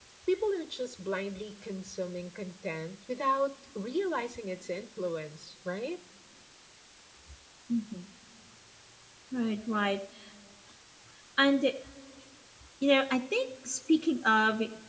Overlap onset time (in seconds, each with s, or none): none